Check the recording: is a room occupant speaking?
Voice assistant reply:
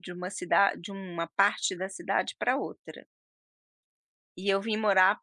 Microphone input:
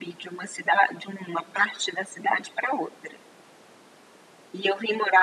No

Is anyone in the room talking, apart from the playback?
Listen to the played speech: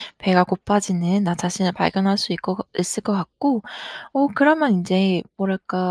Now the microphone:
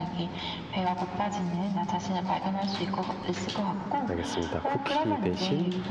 Yes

